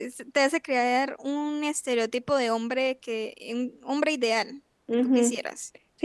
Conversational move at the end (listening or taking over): taking over